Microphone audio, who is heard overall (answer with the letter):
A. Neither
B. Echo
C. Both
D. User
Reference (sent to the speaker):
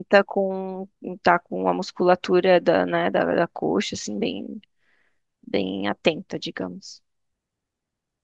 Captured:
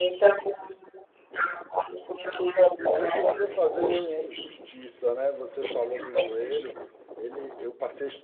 C